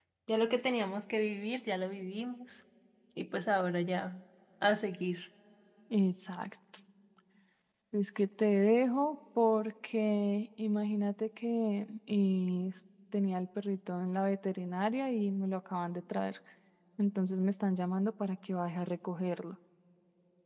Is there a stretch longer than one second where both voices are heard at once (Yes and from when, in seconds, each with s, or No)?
No